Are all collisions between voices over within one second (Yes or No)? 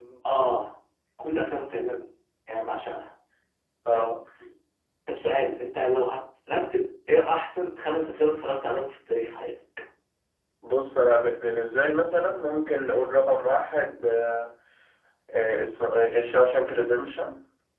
Yes